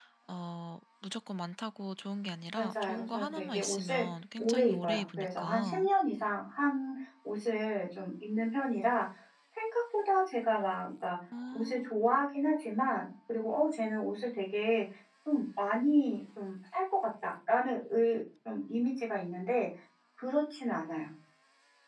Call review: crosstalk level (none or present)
present